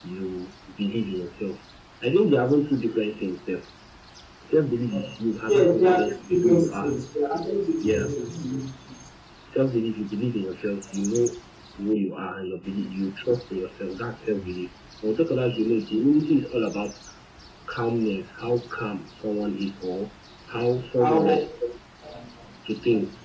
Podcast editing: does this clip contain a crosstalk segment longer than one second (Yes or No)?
Yes